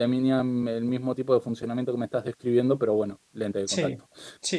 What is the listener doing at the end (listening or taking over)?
taking over